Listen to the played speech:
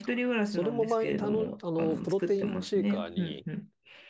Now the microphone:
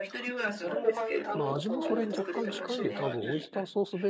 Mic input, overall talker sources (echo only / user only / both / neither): both